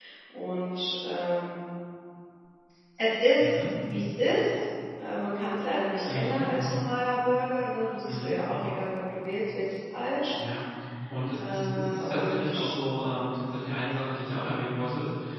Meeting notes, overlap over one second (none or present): present